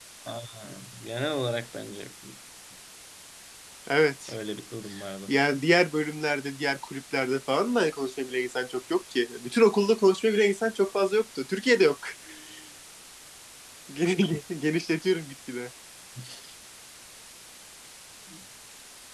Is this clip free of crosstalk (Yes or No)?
Yes